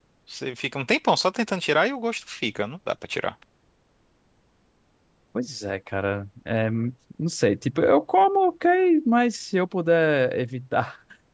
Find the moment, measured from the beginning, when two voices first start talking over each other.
none

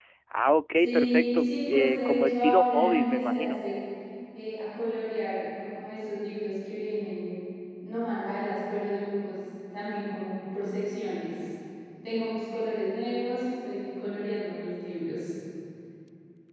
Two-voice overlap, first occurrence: 0.8 s

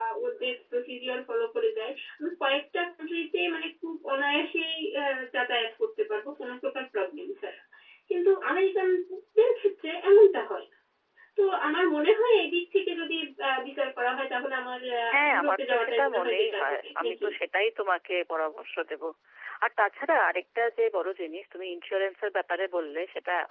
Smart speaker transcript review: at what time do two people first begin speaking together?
15.1 s

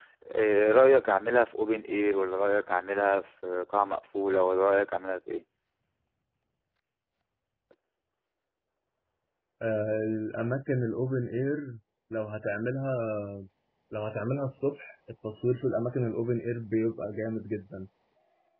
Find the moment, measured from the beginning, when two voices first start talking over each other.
none

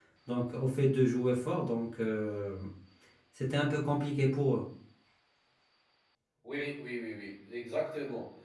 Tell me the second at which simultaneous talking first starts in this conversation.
none

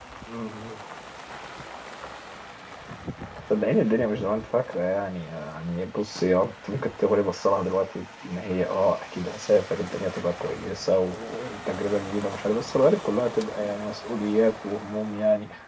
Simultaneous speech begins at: none

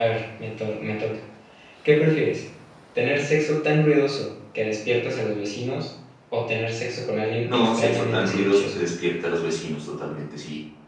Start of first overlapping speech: 7.4 s

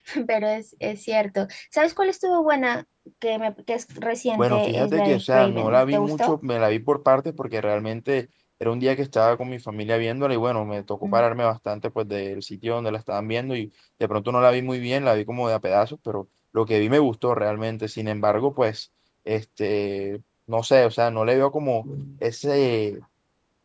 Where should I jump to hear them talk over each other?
4.4 s

